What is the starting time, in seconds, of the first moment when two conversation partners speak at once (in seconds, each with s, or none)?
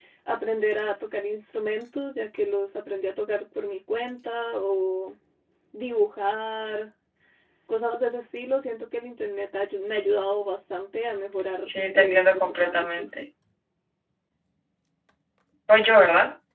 11.7 s